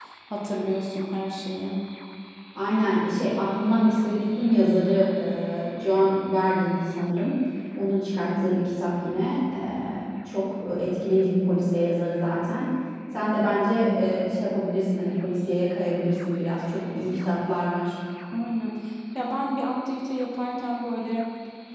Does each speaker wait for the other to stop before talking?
Yes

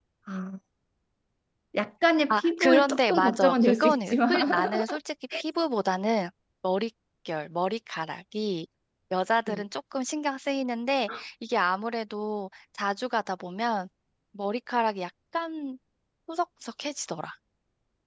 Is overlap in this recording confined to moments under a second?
No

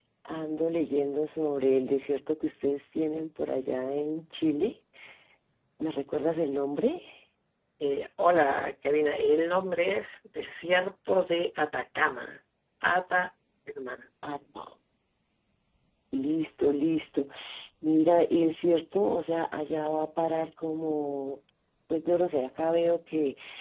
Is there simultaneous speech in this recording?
No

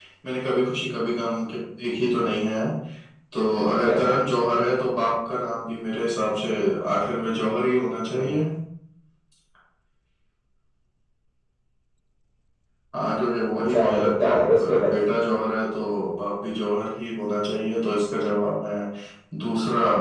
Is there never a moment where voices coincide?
No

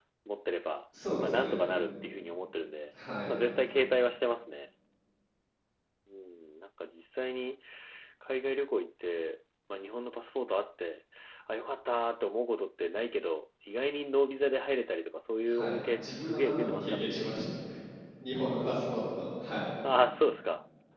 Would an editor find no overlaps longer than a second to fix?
No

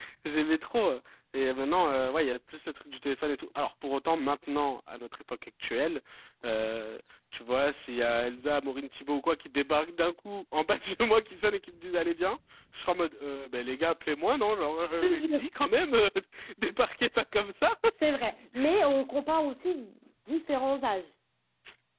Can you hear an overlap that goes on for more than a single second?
No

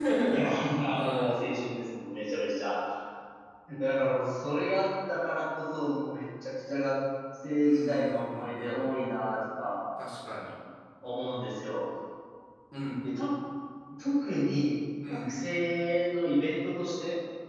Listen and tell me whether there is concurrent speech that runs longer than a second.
Yes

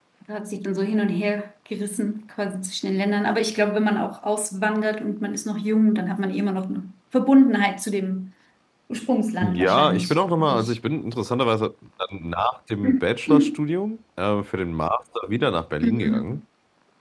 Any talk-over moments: Yes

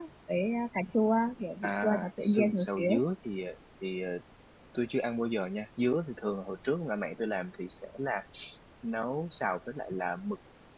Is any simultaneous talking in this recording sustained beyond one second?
Yes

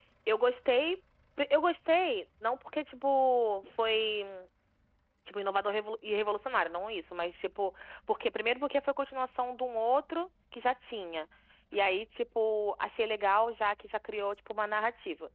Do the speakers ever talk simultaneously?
No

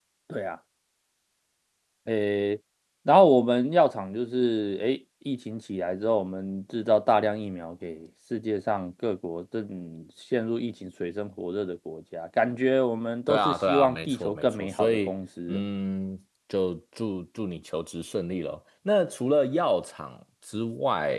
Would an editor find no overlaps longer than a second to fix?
No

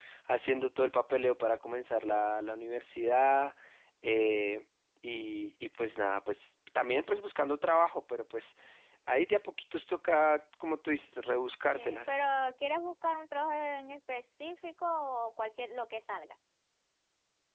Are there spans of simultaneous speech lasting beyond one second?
No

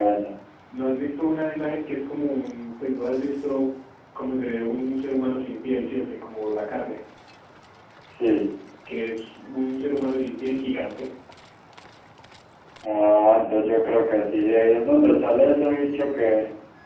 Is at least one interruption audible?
No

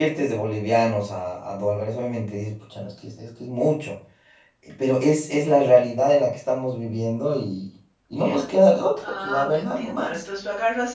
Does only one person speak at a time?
No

